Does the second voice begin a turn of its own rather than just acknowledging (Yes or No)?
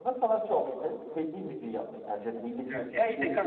Yes